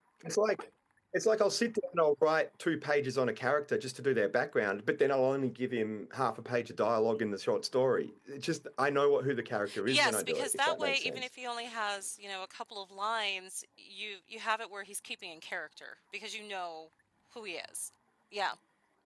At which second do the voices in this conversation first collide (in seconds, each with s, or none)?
9.7 s